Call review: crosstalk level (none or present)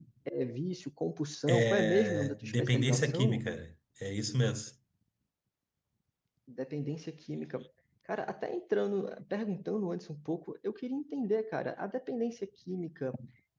present